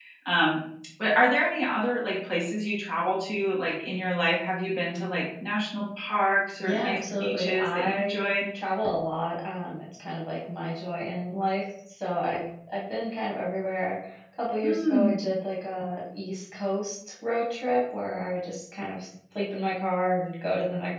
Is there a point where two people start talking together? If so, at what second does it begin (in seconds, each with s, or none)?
6.6 s